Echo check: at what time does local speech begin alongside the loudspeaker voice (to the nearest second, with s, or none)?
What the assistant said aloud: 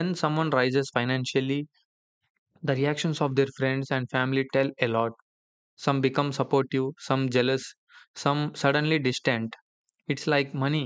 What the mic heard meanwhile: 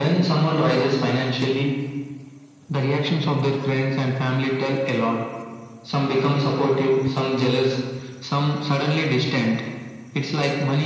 none